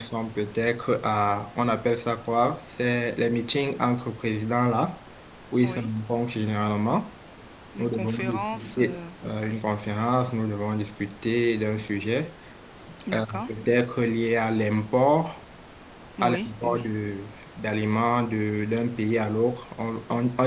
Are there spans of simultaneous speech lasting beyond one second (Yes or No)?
Yes